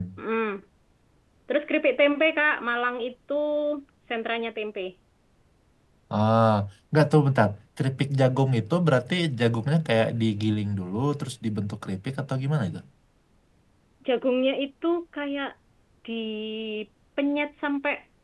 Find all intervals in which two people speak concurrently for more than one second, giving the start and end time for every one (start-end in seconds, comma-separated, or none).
none